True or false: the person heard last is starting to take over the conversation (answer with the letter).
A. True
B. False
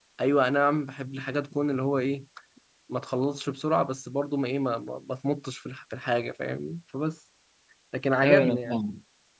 A